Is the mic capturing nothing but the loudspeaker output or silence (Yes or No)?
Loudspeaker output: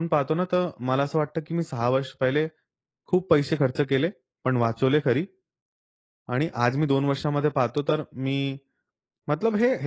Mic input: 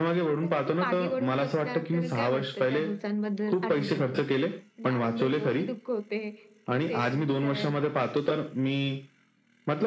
No